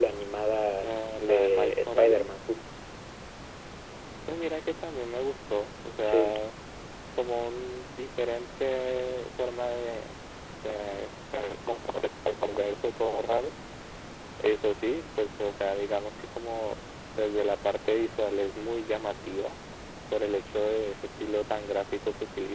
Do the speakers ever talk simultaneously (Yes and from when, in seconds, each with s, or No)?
Yes, from 0.8 s